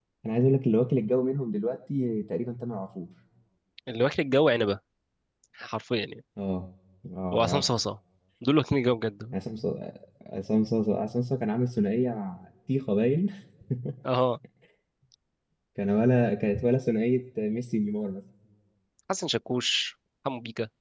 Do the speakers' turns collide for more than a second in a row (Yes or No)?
No